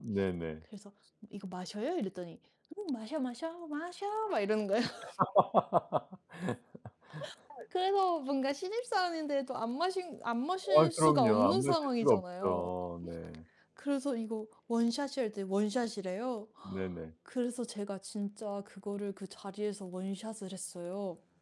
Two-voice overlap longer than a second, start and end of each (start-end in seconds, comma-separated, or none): 10.8-12.7